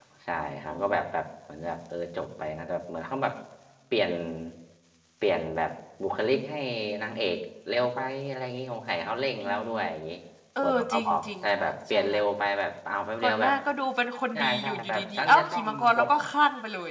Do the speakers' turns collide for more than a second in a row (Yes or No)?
Yes